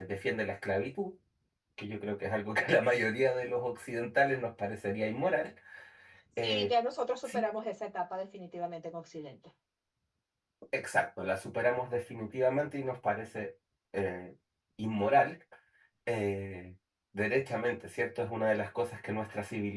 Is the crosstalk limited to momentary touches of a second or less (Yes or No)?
Yes